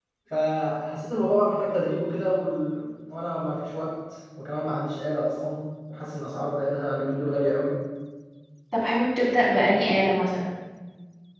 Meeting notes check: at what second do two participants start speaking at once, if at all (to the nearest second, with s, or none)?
none